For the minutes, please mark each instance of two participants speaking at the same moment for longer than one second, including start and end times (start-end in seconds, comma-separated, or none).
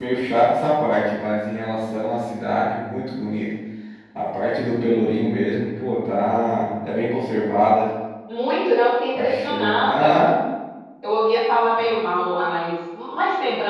9.1-10.4